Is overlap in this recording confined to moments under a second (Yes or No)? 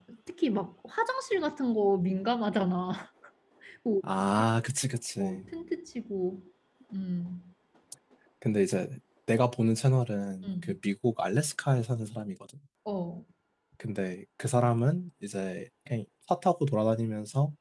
Yes